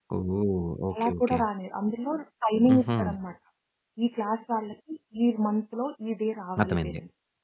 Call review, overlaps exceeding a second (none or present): none